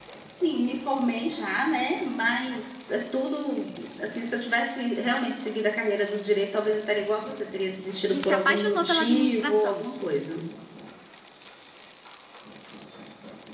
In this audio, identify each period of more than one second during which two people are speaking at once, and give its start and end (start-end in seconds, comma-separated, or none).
8.1-9.8